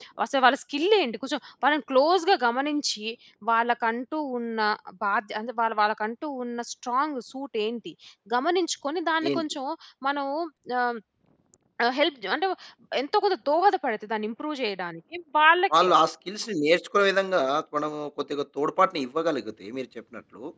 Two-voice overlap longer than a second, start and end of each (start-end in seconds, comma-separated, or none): none